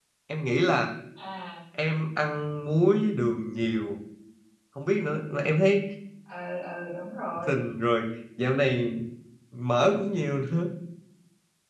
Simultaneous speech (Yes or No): No